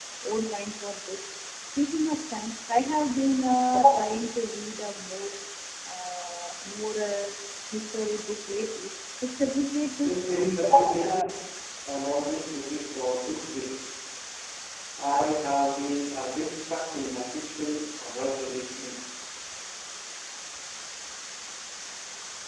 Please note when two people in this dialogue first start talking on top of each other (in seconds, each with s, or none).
10.0 s